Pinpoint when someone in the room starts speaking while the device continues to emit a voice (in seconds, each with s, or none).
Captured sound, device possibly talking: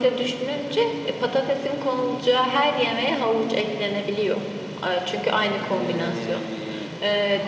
5.6 s